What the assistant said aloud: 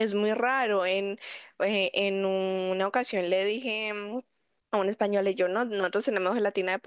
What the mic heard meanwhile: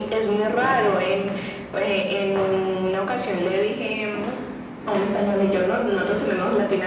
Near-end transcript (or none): none